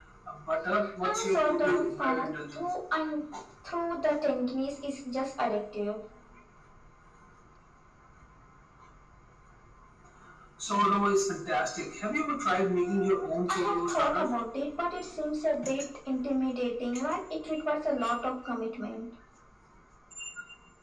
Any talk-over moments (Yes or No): Yes